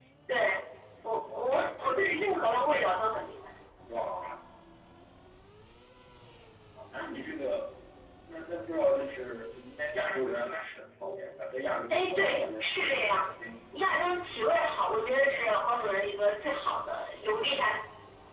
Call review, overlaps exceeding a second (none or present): present